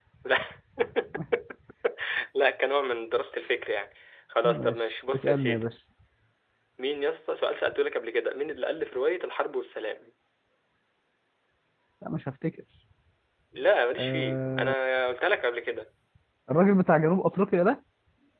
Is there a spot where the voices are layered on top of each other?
Yes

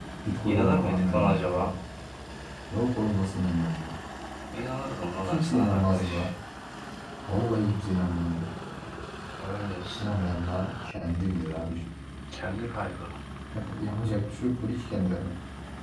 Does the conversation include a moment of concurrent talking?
Yes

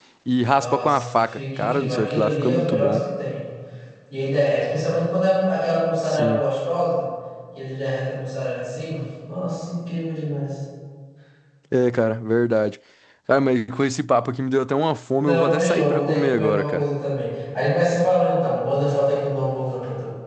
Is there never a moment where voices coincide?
No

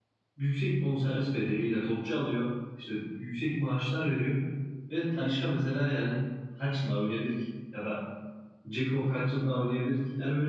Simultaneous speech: No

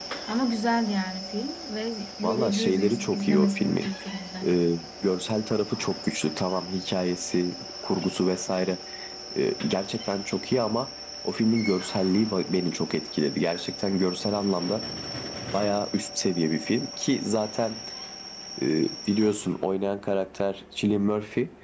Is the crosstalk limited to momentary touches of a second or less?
No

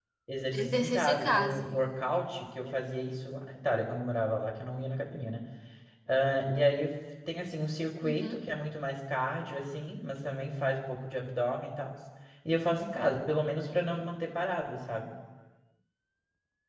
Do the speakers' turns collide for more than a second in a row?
Yes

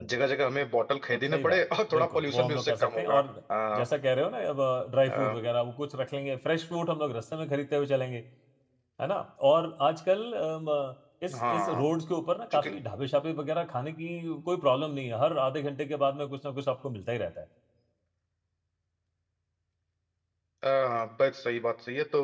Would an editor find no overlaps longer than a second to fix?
No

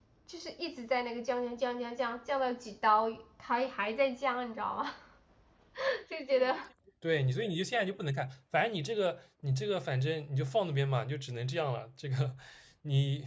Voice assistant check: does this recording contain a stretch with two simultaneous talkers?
No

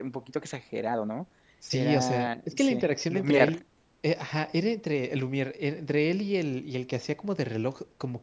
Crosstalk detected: Yes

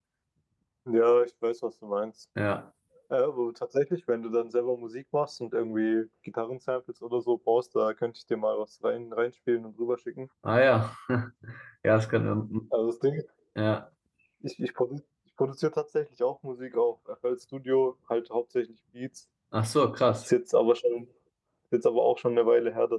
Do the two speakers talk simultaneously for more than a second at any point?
No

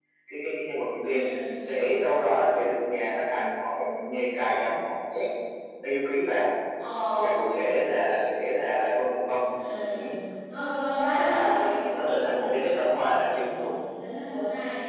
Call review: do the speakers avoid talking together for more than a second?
Yes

